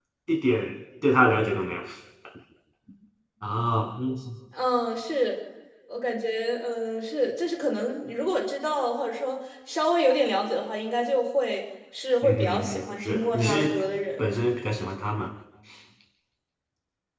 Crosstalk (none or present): present